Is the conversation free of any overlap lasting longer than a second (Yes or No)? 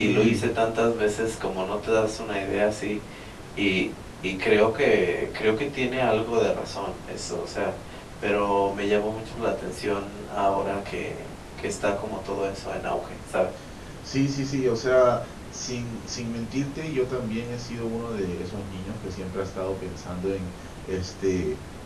Yes